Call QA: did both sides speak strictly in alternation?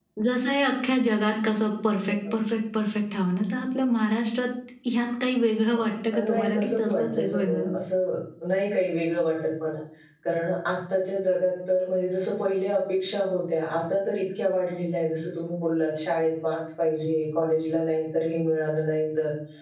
No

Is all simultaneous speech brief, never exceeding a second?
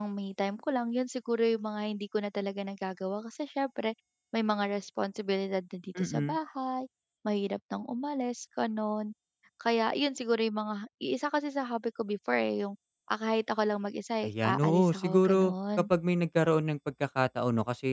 No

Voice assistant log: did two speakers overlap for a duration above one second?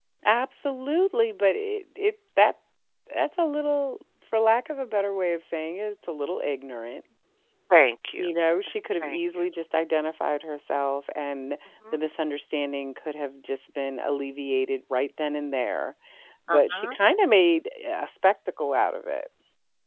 No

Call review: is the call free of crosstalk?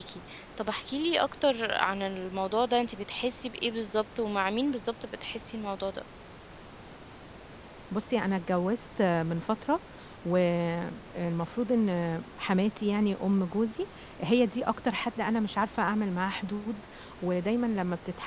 Yes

